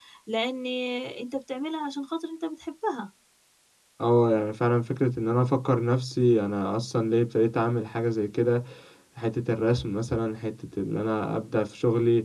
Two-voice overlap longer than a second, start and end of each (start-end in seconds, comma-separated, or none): none